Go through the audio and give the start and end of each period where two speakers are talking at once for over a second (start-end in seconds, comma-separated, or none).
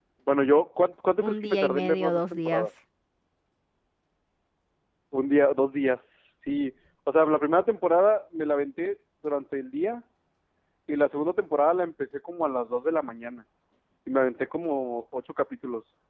1.2-2.7